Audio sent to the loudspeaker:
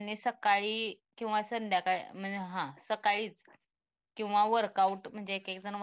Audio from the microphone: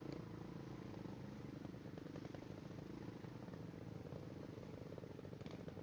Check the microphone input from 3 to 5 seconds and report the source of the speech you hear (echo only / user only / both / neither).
neither